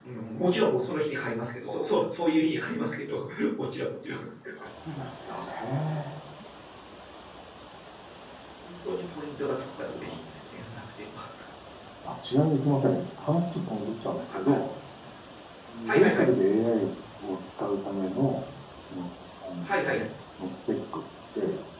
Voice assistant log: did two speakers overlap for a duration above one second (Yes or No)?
No